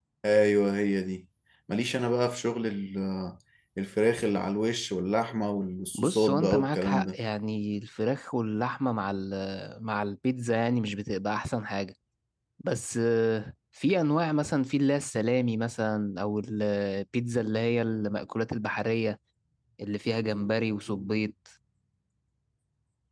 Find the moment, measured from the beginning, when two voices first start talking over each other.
5.9 s

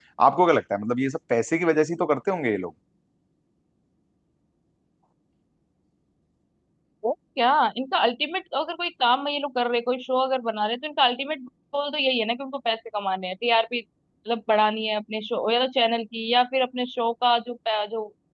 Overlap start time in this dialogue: none

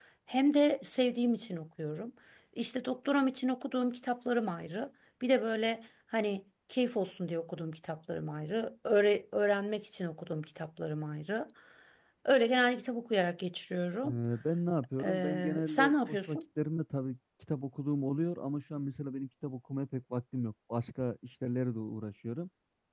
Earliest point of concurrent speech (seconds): 15.0 s

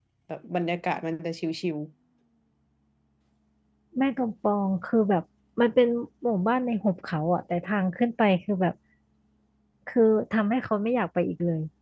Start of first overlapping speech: none

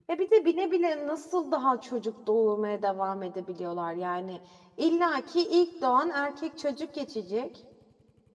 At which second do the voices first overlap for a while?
none

